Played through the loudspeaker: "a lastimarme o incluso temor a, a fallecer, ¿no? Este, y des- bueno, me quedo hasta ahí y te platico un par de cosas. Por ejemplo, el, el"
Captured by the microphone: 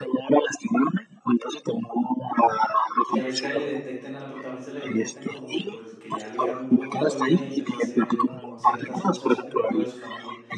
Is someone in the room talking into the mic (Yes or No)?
Yes